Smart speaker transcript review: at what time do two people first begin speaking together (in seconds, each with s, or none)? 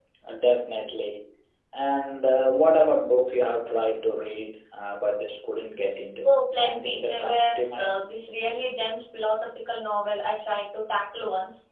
6.2 s